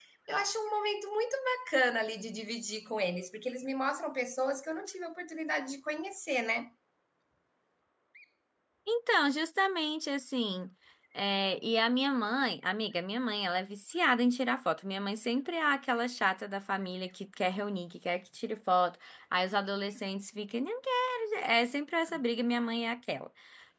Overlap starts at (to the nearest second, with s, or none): none